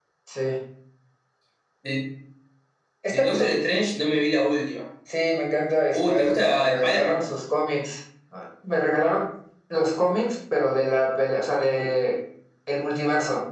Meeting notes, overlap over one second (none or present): present